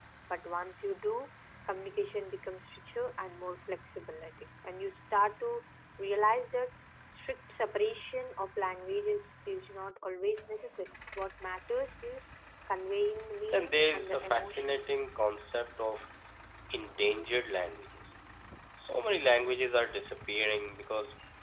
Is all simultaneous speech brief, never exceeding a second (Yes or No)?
No